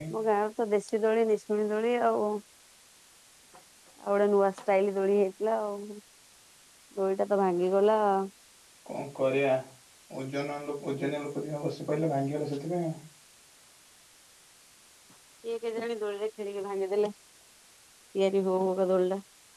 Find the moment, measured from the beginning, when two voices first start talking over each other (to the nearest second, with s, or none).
none